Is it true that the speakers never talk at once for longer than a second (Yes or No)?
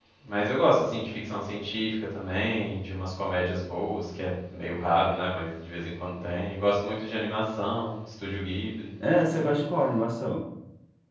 Yes